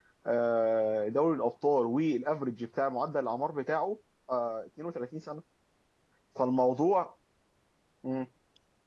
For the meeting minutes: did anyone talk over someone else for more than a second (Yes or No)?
No